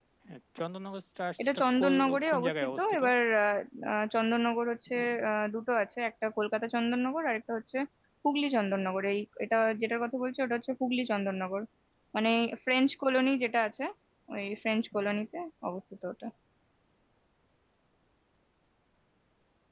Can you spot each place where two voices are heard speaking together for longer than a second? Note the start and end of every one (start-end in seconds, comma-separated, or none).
1.4-3.0